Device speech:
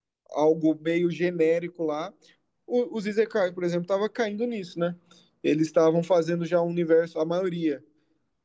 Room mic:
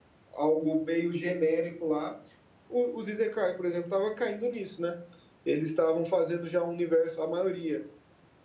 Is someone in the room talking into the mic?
No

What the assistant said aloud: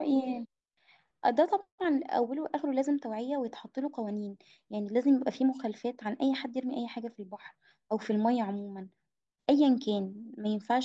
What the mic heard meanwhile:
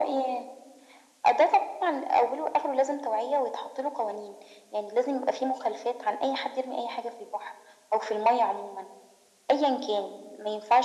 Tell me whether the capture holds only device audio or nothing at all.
Yes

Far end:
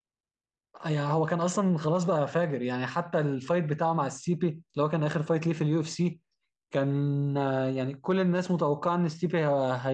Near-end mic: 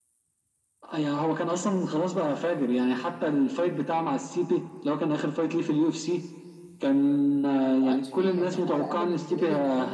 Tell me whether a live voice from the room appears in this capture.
Yes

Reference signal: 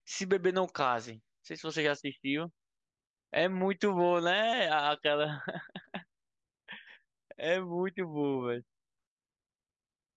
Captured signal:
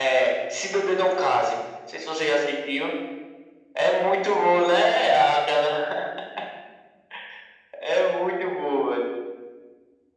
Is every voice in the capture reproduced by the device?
Yes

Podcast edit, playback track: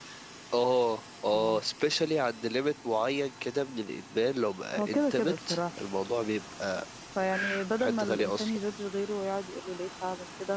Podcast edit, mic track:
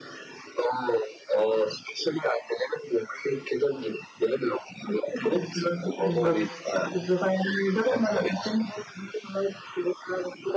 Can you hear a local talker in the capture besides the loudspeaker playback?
Yes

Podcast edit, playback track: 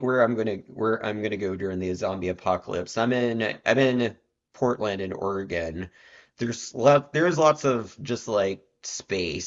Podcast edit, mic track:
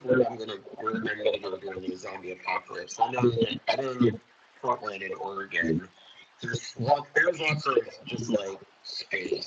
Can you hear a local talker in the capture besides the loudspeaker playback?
No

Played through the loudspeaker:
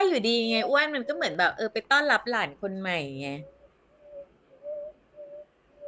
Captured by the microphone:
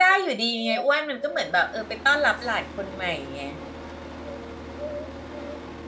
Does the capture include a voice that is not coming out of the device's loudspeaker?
No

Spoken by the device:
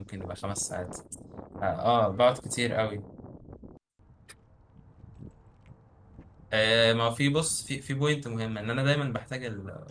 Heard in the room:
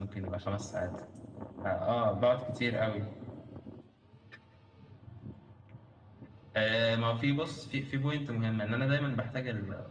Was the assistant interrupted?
No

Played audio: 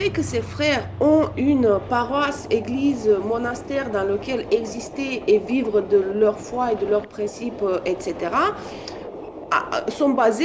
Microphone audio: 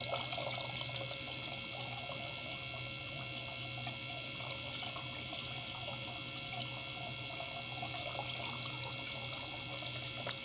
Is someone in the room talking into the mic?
No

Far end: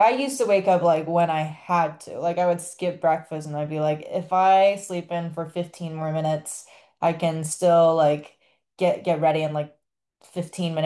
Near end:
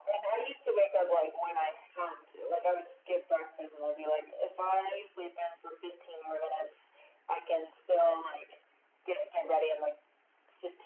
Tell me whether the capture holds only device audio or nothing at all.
Yes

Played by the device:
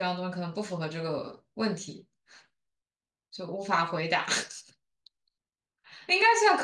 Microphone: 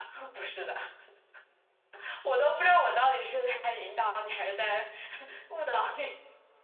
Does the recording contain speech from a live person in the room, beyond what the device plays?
Yes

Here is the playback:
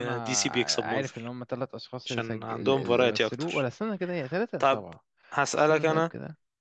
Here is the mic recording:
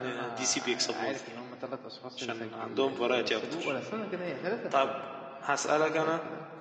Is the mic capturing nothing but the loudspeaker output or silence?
Yes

